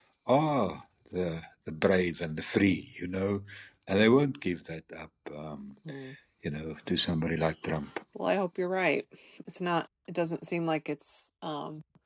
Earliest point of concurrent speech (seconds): none

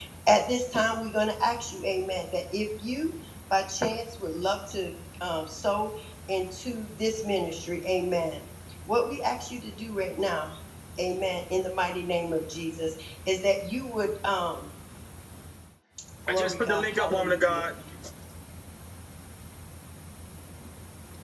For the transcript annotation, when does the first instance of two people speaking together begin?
16 s

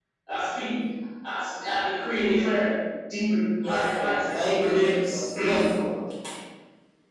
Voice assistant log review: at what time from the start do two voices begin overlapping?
4 s

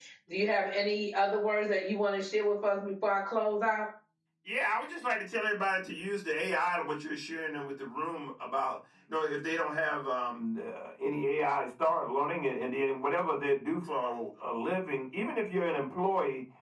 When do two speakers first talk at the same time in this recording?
none

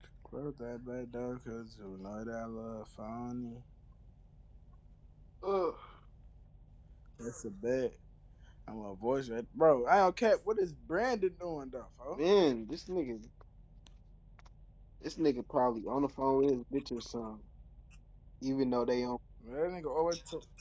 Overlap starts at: none

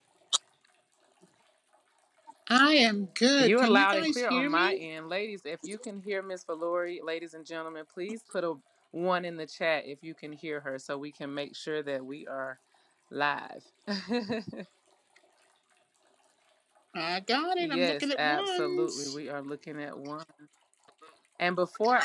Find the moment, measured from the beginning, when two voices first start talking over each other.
3 s

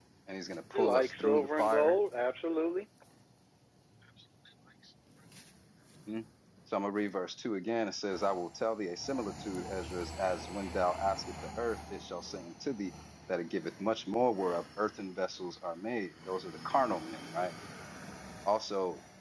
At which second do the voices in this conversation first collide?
1 s

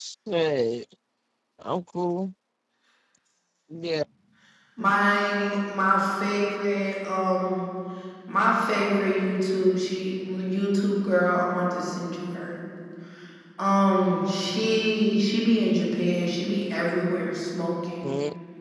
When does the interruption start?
none

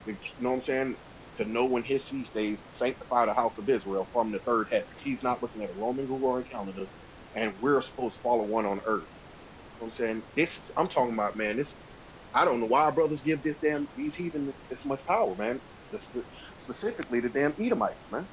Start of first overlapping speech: none

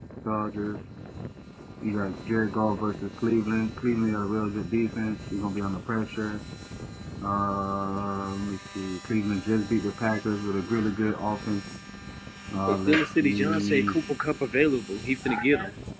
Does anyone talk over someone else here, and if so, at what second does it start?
13 s

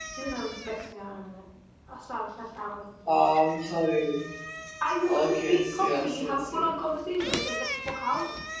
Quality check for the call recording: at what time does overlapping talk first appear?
5 s

